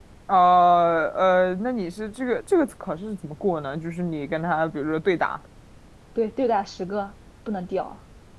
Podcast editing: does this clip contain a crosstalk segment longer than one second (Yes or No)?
No